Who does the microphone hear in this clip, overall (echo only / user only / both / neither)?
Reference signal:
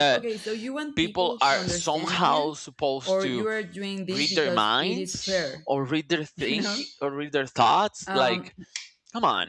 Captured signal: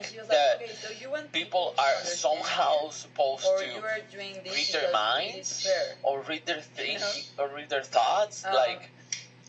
echo only